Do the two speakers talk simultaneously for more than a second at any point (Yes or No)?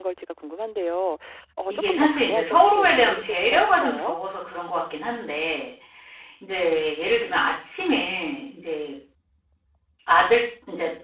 Yes